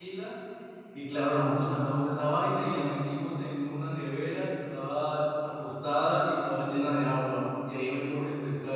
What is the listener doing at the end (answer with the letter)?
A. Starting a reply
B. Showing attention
B